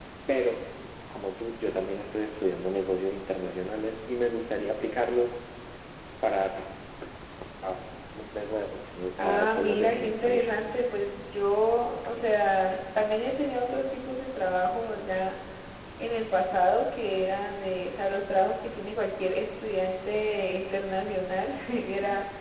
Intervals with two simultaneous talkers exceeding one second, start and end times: 9.2-10.5

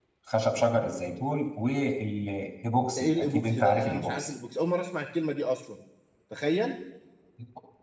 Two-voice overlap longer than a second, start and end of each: 3.0-4.3

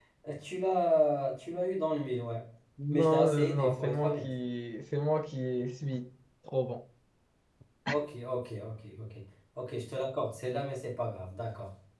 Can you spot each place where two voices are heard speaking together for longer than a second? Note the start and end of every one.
2.9-4.2

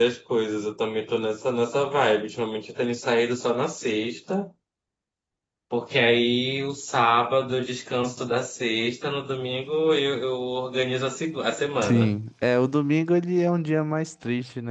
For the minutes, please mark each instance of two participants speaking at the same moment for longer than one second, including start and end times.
none

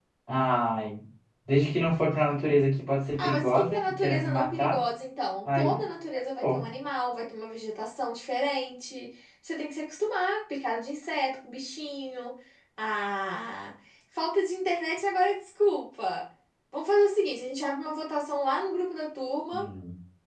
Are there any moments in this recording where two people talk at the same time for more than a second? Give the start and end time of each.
3.2-4.8

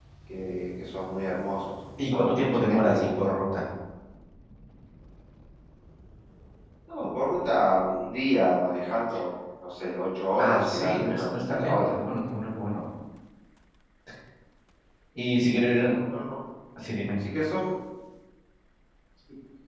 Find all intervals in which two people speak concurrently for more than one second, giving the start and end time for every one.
2.0-3.3, 10.4-12.0

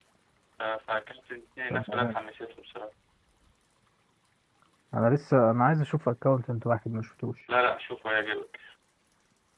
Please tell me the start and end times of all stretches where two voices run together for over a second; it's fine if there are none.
none

